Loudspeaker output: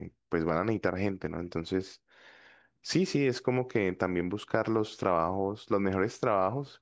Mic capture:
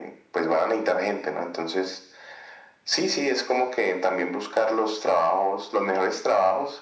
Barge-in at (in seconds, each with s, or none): none